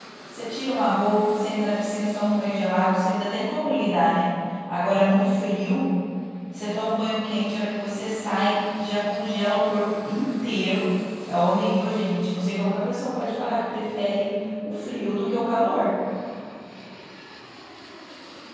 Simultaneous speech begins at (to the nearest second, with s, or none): none